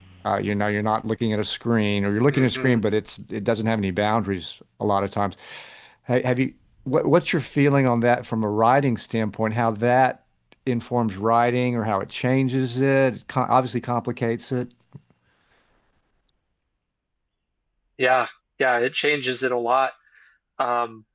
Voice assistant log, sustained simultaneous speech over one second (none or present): none